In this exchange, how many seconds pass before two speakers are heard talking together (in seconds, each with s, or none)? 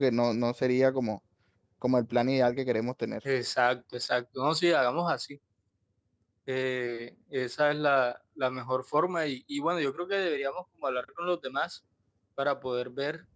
none